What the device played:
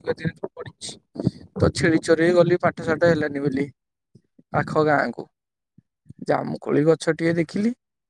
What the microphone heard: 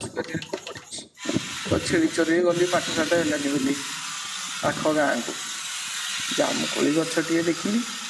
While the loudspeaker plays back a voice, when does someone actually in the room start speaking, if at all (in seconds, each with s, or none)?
none